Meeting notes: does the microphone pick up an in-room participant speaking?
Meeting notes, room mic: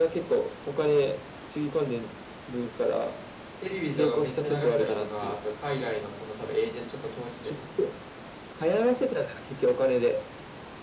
Yes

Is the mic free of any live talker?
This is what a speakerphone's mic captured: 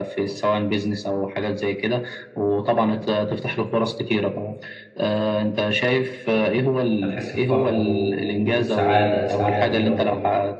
No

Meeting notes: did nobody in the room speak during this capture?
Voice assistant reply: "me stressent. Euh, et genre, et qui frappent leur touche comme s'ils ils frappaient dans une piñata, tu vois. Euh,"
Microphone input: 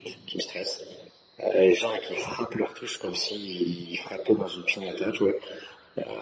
Yes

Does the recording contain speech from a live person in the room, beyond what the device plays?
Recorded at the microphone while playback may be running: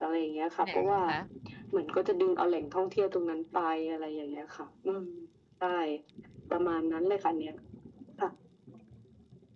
Yes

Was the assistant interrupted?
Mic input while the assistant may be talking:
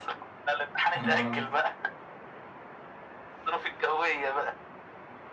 Yes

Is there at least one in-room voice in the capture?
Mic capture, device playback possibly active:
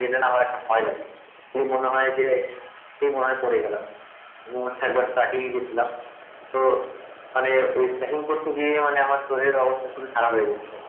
No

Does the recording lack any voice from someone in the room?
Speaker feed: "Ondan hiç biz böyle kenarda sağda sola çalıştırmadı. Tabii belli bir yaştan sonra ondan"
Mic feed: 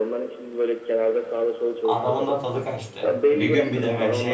No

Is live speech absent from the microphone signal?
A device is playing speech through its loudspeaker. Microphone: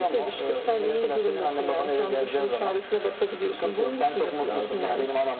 Yes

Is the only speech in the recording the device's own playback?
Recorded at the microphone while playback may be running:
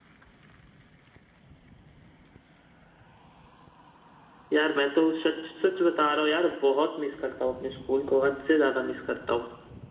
Yes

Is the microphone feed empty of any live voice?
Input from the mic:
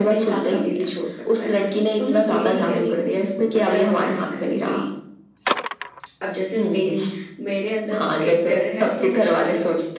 No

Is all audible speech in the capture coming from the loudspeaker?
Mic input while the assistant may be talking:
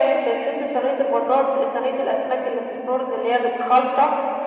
Yes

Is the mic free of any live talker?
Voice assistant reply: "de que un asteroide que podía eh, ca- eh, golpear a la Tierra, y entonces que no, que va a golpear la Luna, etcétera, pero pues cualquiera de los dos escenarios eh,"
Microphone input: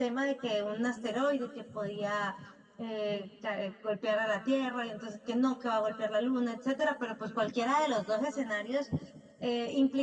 Yes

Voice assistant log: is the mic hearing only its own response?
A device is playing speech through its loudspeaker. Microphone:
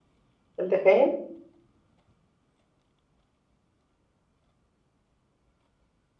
No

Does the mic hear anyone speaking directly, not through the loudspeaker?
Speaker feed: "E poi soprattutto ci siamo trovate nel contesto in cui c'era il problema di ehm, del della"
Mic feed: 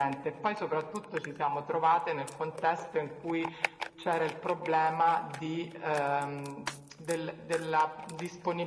No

